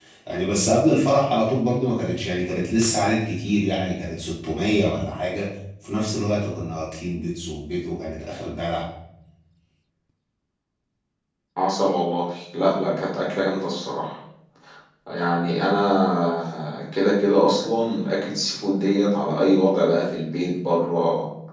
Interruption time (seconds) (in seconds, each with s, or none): none